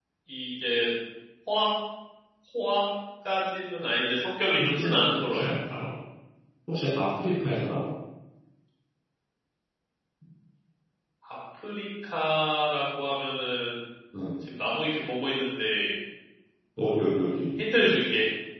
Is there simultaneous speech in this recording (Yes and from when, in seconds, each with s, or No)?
Yes, from 4.6 s